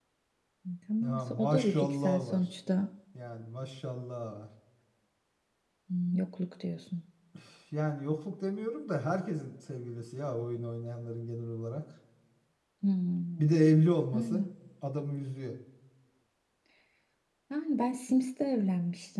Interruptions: present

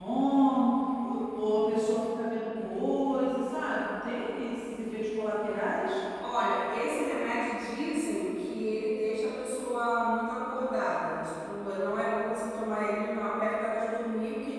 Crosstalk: none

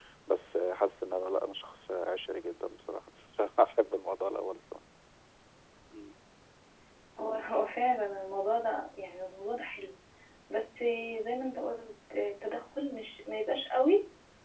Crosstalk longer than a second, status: none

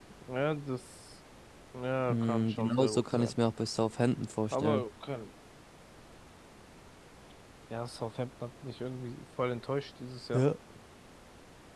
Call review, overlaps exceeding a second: present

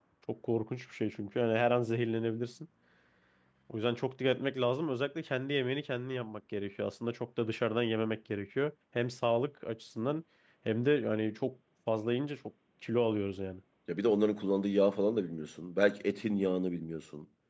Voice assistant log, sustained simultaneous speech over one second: none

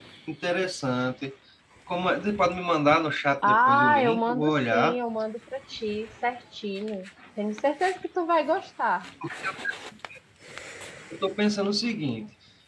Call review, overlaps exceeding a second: present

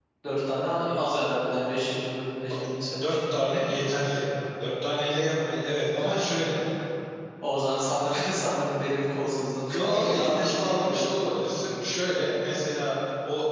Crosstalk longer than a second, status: present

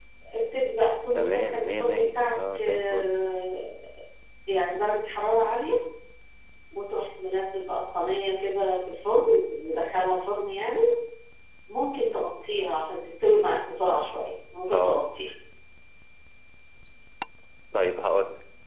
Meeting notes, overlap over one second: present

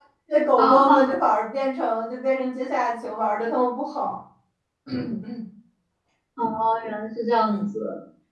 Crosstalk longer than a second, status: none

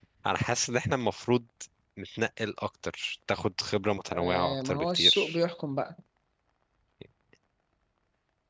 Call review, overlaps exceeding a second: present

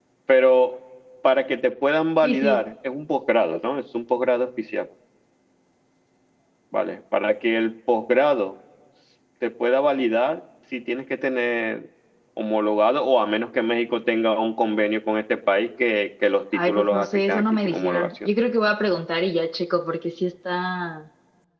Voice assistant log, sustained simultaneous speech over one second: present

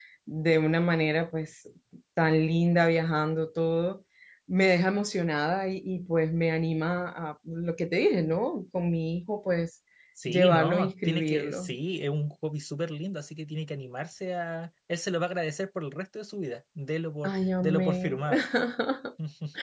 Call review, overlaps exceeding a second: present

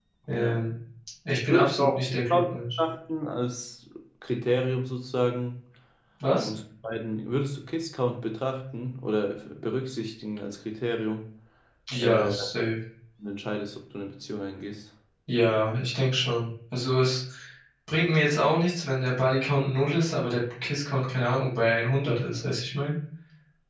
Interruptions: present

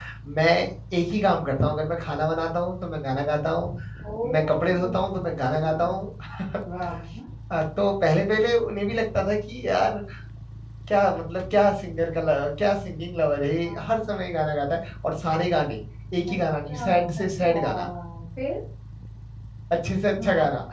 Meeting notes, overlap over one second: present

